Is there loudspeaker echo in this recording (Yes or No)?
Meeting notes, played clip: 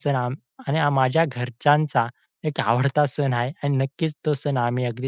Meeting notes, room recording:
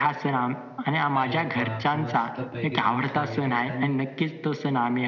Yes